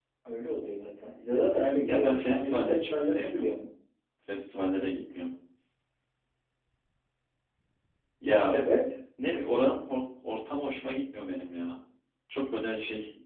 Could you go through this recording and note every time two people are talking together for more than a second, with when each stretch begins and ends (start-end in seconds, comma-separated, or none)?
1.9-3.6